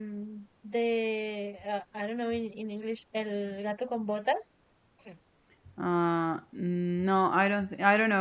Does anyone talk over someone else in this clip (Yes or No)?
No